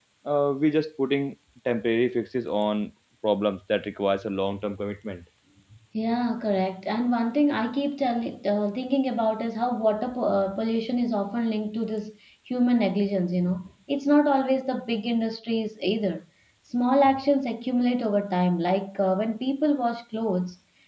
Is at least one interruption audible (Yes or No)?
No